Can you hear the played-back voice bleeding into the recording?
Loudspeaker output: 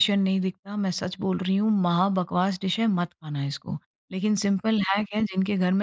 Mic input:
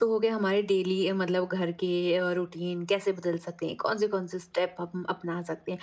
No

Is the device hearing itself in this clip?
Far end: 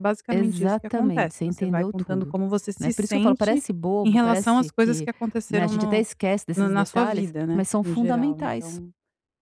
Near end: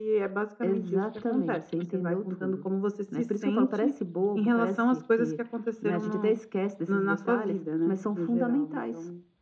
Yes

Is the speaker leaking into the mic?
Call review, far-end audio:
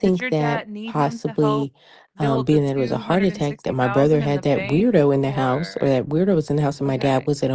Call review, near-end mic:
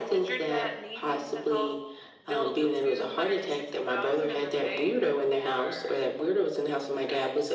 Yes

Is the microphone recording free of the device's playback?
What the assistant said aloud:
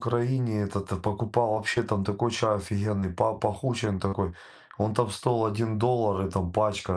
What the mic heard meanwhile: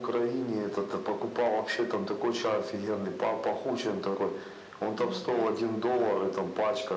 No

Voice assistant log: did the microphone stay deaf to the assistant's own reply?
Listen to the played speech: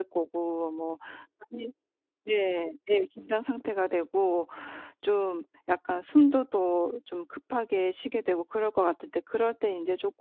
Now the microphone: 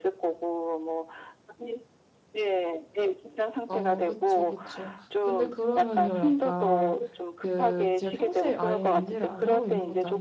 No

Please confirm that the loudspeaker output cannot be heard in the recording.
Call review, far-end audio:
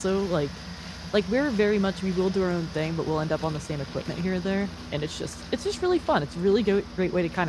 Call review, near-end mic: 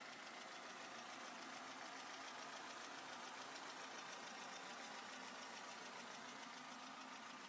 Yes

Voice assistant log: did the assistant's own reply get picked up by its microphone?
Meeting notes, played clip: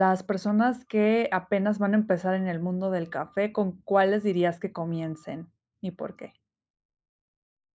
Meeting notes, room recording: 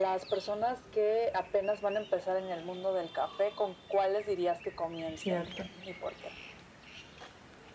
Yes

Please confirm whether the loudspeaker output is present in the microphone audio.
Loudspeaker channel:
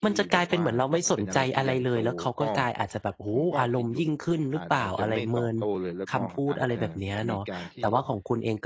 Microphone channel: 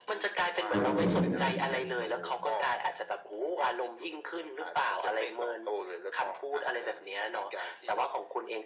Yes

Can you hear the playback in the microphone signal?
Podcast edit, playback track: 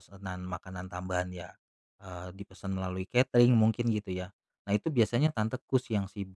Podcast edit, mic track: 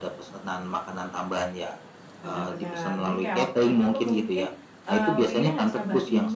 Yes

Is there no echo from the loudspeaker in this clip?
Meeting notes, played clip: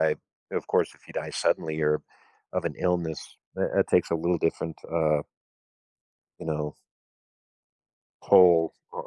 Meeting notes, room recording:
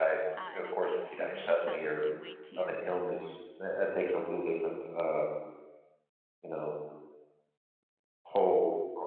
No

